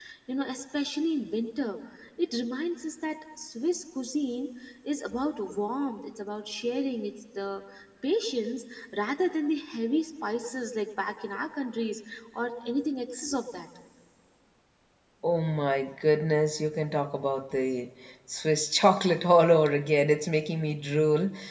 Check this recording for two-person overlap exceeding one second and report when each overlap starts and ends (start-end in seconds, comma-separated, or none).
none